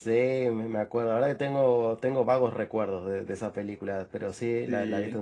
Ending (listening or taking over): listening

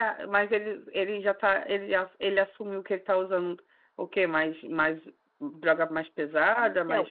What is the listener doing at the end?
taking over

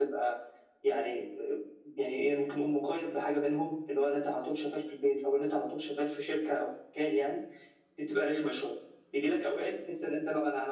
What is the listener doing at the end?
listening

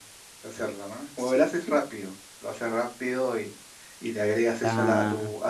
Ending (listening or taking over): listening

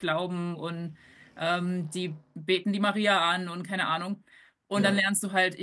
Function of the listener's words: listening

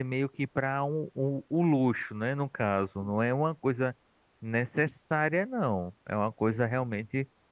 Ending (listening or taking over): listening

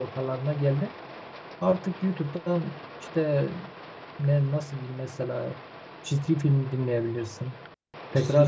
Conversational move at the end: listening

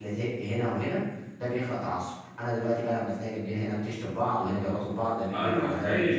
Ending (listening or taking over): taking over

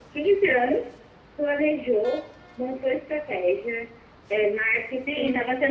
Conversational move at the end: taking over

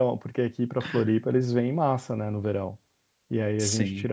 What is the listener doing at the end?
listening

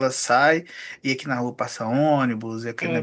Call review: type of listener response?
listening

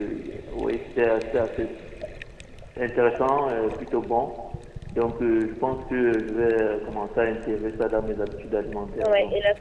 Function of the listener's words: taking over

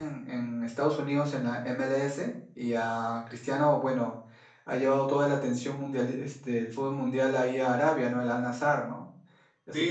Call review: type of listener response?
taking over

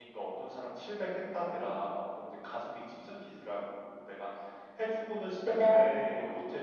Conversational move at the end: listening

